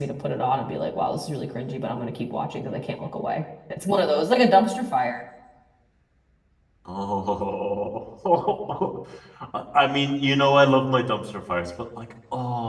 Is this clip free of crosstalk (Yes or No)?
Yes